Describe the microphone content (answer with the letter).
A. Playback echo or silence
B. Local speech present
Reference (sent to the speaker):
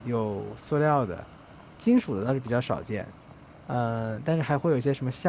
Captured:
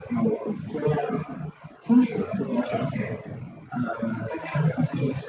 A